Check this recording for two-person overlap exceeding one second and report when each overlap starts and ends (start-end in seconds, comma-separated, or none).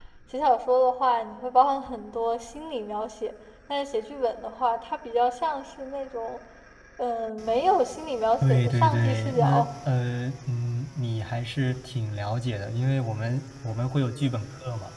8.4-9.7